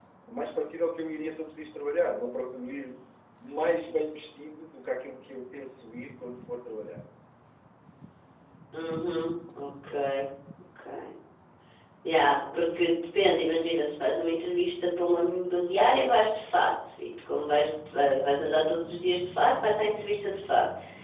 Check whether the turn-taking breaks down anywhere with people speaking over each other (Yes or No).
No